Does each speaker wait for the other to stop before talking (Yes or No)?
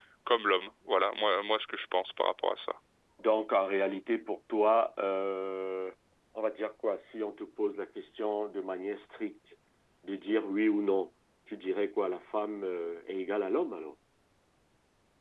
Yes